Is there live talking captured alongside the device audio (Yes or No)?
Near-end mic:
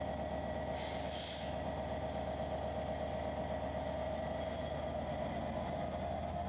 No